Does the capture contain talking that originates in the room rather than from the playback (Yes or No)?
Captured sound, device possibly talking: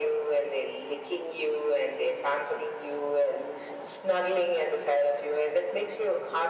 No